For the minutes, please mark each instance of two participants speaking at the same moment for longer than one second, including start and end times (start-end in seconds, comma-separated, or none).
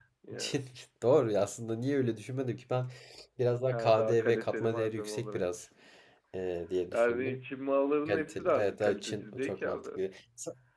3.7-5.4, 8.1-9.8